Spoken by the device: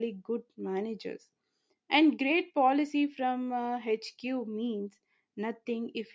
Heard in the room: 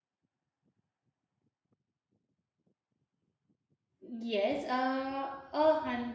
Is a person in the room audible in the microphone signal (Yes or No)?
Yes